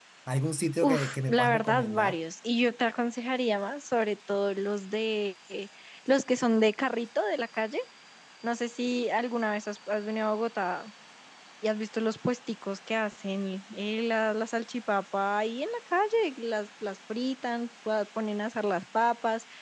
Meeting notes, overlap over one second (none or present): present